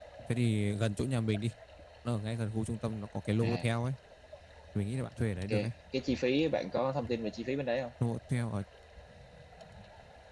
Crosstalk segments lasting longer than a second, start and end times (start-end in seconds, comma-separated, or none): none